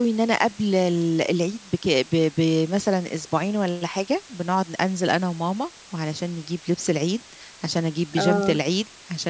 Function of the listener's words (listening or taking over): listening